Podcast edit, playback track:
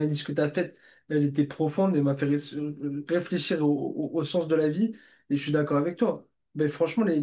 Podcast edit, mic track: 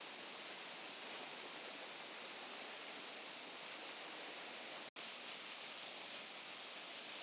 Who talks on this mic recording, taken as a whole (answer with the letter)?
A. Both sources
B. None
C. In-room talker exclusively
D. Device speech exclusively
B